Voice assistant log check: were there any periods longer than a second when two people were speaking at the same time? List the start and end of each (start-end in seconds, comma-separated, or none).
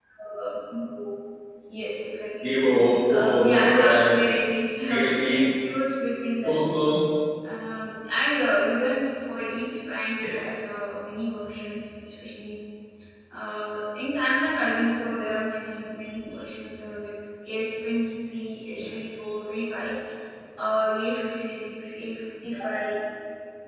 3.1-4.4